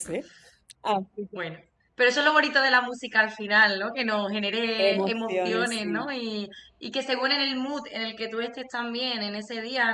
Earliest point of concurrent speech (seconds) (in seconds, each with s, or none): 4.8 s